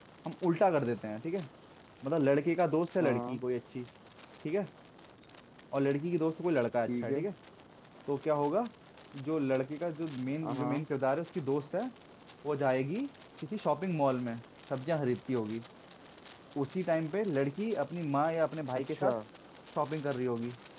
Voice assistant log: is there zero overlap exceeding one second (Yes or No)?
Yes